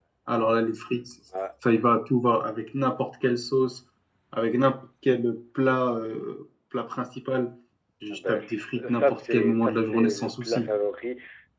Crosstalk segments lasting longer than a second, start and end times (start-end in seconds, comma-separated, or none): 8.1-10.7